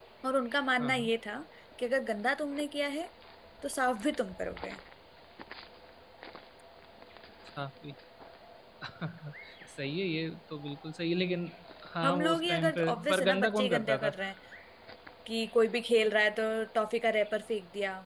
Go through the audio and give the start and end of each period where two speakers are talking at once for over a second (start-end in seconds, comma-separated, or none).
12.0-14.1